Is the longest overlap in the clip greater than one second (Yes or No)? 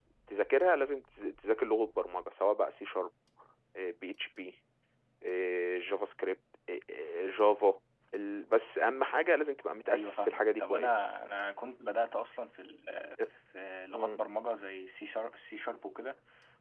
Yes